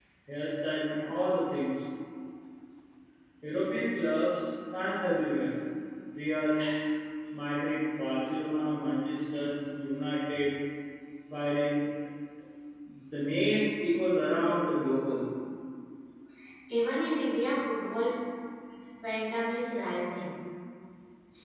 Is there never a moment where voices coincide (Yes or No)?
Yes